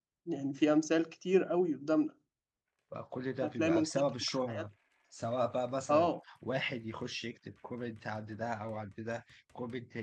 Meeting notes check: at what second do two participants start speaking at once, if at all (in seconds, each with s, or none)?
3.4 s